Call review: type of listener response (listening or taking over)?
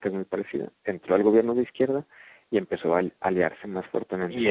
taking over